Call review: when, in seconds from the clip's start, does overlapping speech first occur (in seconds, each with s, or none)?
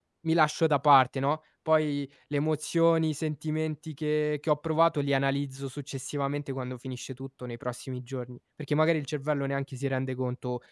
none